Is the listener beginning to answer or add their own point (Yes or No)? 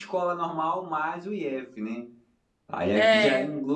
No